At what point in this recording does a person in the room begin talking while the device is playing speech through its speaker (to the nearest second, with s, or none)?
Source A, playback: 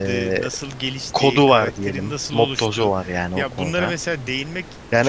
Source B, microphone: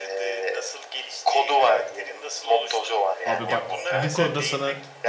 3 s